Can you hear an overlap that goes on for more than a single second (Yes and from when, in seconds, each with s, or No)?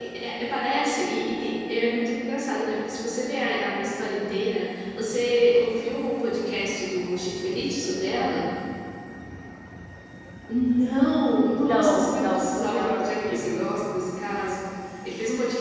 Yes, from 11.6 s